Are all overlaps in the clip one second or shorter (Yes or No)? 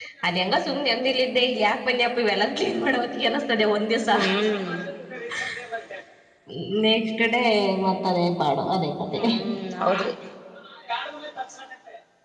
Yes